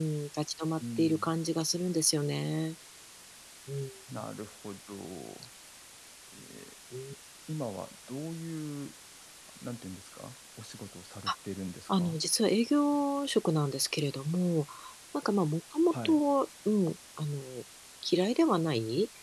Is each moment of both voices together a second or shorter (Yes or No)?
Yes